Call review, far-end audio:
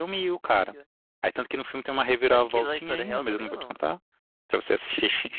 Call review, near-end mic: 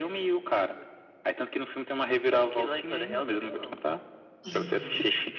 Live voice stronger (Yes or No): No